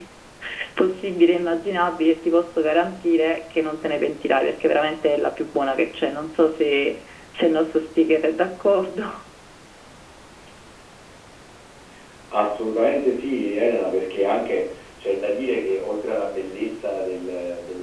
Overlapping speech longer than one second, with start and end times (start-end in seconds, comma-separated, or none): none